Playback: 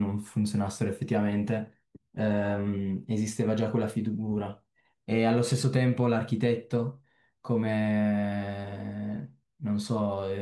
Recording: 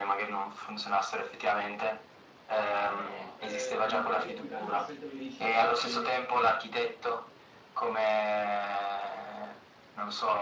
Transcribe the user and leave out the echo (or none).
Però eh, io più che altro ho scelto medicina perché